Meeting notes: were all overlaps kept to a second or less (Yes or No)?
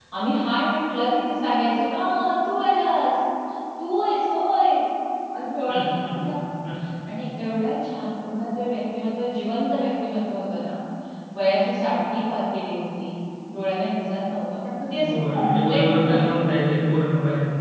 No